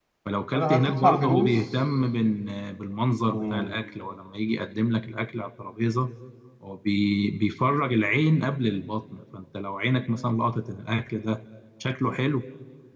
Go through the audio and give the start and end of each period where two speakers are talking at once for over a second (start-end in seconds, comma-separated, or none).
0.5-1.8